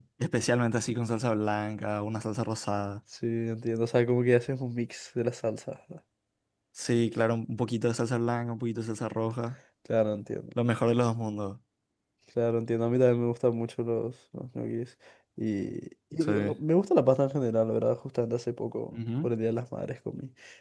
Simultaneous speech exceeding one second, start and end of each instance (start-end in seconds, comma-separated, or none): none